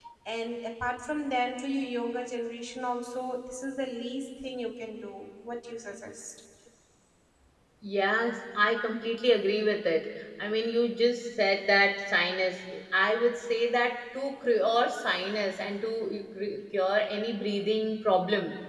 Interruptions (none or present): none